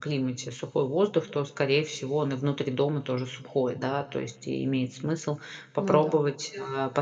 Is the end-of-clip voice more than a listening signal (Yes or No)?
No